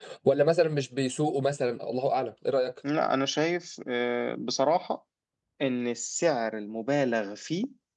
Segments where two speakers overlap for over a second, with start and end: none

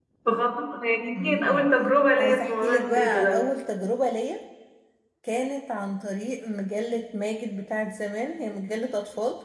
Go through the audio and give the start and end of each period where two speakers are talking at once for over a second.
2.2-3.4

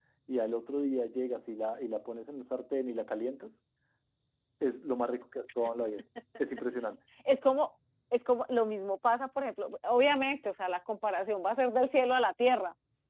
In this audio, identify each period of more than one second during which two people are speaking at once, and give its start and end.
none

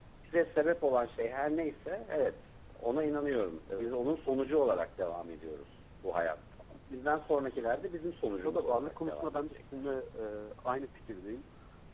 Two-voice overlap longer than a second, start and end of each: 8.4-9.9

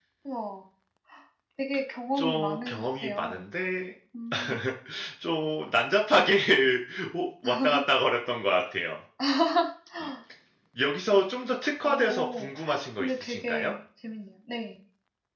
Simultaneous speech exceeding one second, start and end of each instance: 2.2-3.4, 11.8-13.7

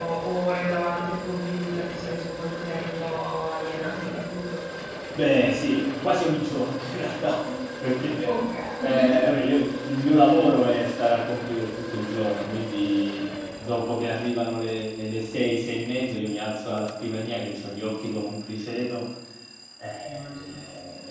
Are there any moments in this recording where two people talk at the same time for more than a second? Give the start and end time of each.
none

